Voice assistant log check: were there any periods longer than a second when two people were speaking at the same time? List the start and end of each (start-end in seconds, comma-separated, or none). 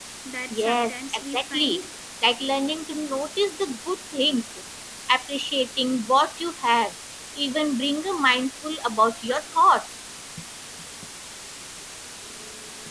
0.6-1.8